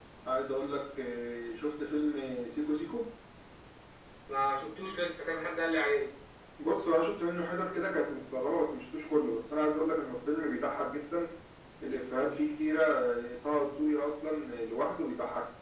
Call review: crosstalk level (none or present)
none